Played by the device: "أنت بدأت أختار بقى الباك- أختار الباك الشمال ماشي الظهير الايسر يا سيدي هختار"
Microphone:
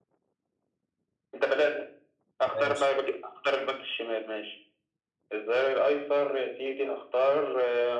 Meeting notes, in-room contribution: present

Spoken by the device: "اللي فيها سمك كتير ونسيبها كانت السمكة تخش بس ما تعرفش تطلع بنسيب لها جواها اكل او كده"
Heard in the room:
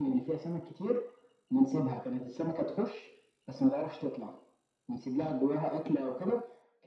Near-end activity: none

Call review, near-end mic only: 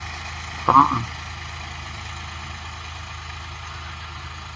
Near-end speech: present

